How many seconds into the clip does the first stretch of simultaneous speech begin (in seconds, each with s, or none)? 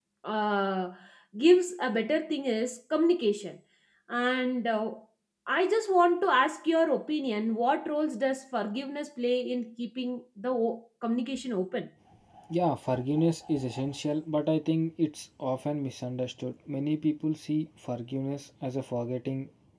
none